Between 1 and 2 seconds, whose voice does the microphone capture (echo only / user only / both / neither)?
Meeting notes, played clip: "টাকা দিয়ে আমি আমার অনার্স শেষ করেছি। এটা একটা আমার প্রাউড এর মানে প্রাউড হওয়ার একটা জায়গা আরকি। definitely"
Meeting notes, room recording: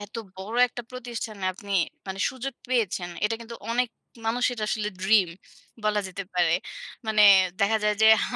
user only